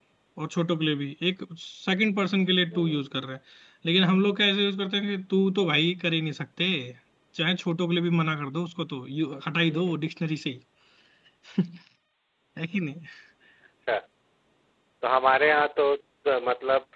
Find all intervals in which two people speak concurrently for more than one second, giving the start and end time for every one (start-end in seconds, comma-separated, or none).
none